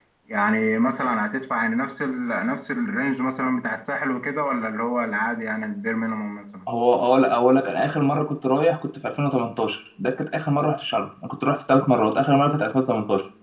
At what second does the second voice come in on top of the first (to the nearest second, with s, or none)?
none